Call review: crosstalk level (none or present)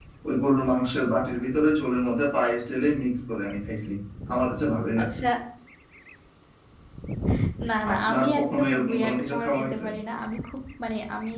present